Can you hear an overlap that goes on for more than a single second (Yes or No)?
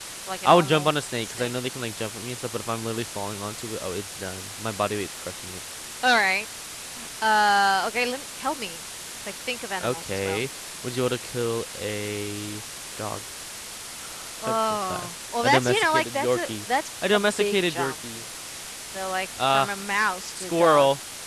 Yes